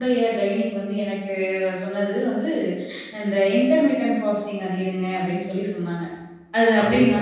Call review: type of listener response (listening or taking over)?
listening